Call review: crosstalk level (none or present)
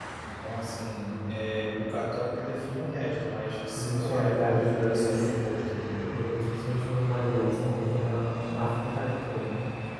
present